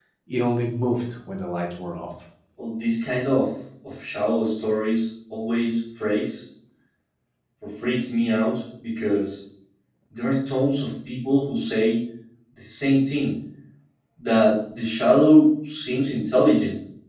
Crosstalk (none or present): none